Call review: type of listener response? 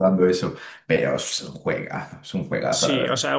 taking over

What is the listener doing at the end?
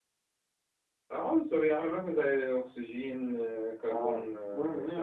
taking over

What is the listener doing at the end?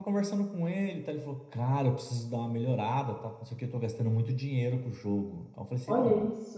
listening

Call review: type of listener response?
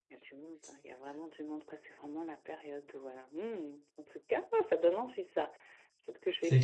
listening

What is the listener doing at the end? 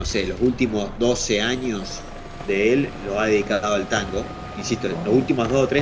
listening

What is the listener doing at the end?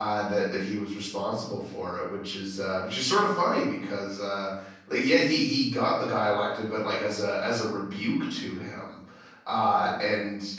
listening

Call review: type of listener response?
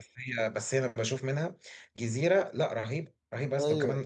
listening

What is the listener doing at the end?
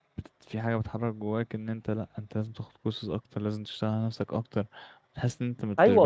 taking over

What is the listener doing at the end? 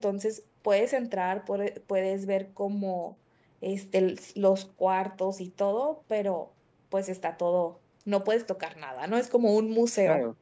taking over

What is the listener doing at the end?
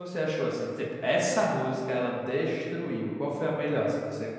taking over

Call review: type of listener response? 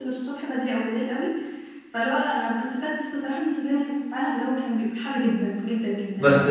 taking over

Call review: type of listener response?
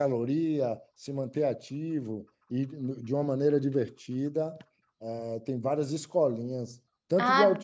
taking over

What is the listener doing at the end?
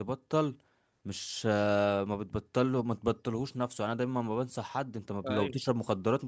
listening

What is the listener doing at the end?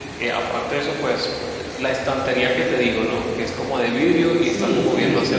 taking over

